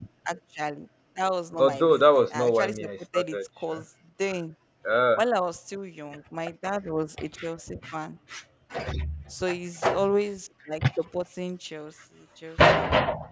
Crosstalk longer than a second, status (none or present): present